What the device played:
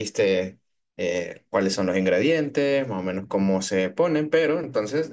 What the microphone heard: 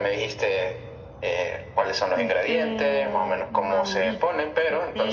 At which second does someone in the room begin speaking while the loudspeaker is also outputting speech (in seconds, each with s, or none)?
1.9 s